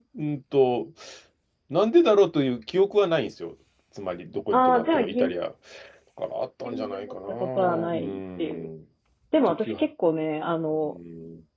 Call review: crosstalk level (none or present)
present